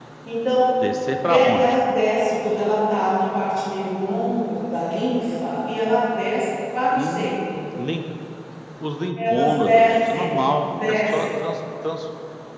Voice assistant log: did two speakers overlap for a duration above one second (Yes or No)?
Yes